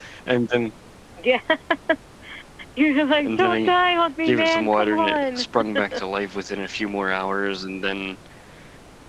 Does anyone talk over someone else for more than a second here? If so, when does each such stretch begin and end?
4.2-5.4

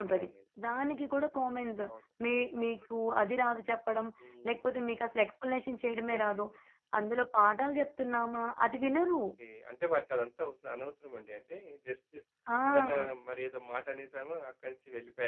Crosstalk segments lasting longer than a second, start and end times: none

